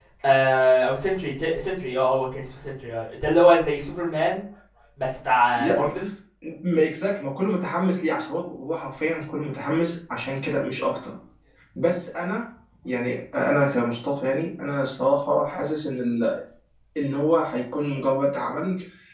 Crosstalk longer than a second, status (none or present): none